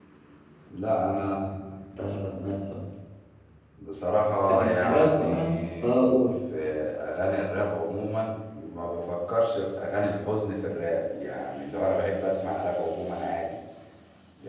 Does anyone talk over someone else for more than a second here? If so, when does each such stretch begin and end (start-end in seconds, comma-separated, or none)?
4.5-5.9